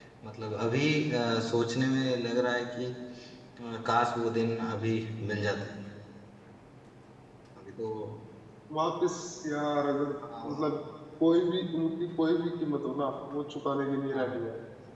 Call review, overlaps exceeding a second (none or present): none